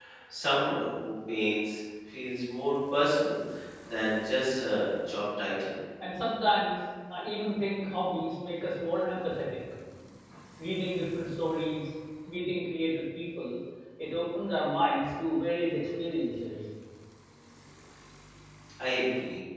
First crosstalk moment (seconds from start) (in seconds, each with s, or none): none